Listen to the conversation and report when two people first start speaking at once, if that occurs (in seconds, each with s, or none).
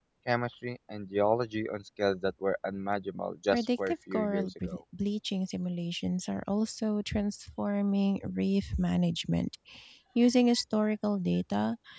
3.5 s